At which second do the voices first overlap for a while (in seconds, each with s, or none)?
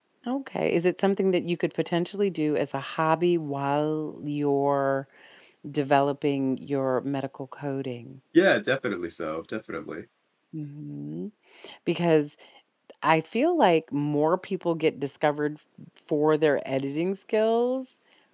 none